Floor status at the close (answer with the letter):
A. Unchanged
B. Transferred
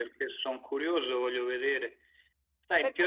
A